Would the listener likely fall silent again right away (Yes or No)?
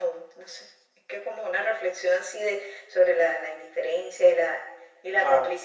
Yes